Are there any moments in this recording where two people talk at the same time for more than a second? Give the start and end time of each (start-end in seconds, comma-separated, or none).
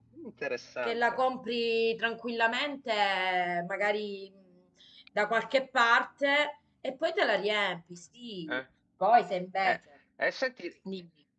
none